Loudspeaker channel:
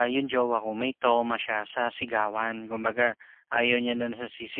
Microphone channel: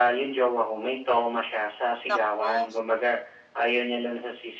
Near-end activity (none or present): present